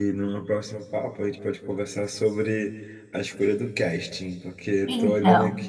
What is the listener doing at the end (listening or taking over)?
listening